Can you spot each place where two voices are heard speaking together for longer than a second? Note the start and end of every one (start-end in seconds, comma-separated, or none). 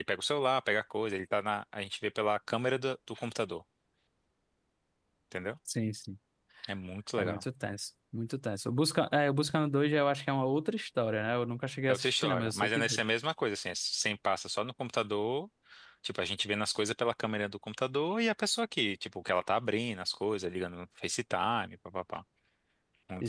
11.9-13.1